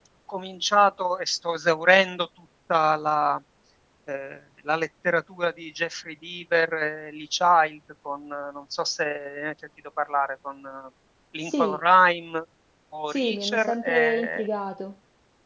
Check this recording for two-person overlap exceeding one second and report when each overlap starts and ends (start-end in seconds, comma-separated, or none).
13.1-14.4